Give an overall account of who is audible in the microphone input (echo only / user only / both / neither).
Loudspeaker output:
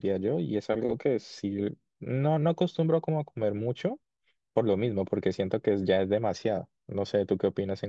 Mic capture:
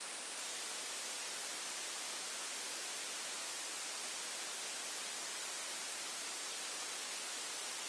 neither